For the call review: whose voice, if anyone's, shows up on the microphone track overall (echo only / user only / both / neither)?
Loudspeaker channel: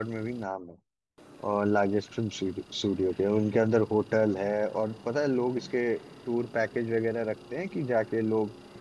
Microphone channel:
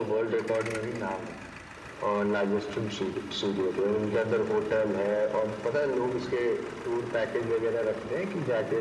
echo only